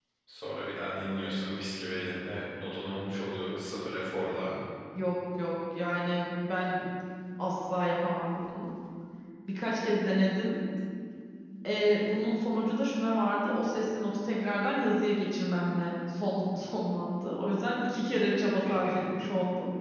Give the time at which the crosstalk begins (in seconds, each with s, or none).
none